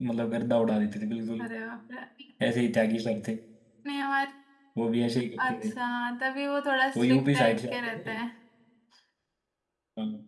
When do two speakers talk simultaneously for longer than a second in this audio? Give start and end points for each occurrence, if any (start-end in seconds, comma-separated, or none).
7.0-8.2